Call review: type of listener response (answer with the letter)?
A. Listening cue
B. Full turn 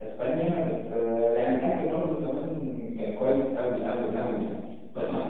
A